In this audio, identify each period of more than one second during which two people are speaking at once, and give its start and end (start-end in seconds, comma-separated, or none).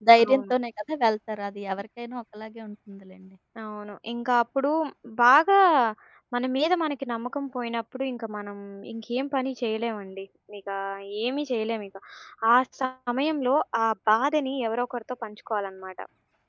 none